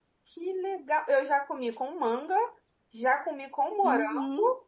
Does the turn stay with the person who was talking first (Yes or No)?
No